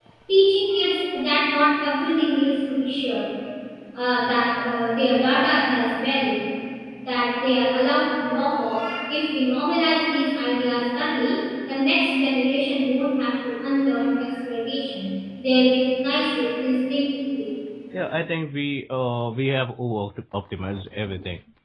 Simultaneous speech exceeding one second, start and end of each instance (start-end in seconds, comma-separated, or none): none